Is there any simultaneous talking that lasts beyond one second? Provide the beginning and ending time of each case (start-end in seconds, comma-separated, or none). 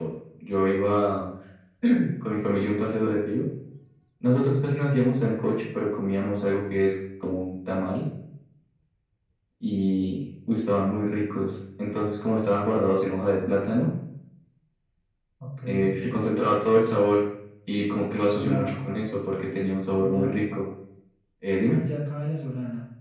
none